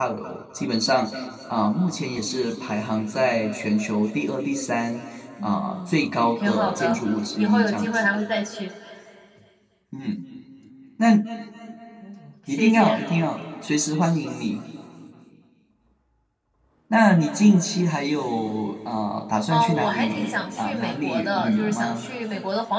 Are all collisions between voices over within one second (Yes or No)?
No